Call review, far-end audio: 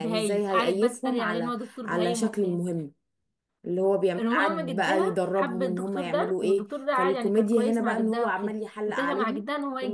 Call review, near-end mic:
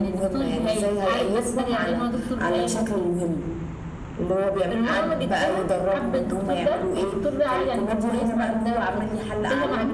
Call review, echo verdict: present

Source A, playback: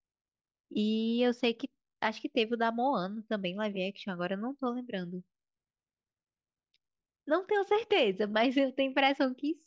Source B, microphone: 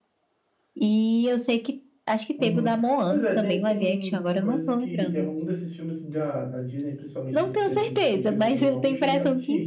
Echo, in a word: present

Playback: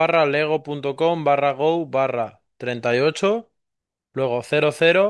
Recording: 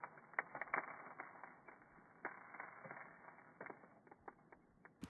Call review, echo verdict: none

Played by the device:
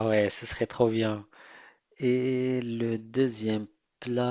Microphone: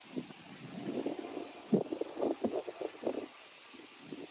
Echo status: none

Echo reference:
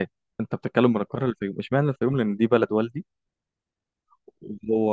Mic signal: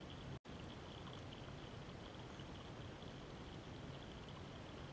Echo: none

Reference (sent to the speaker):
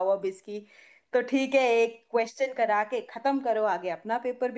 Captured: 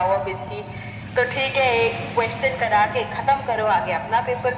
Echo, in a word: present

